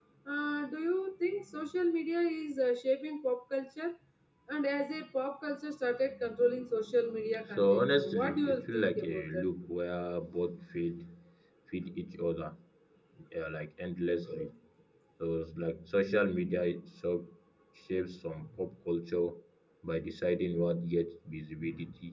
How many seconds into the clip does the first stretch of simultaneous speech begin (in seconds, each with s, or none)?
7.3 s